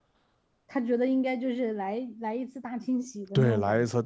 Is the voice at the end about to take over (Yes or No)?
Yes